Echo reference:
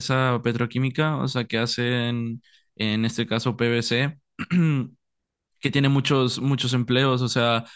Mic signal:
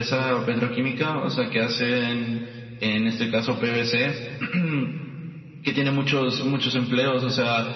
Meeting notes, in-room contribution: none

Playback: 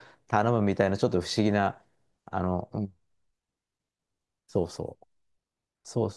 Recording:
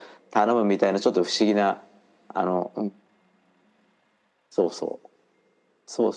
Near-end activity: none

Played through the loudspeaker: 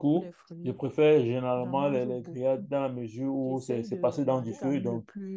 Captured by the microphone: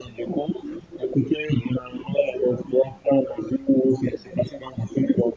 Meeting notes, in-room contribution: none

